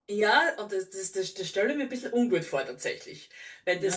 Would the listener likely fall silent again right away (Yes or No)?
No